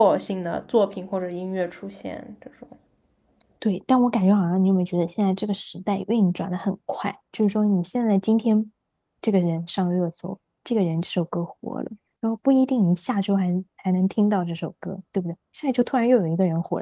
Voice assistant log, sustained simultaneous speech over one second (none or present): none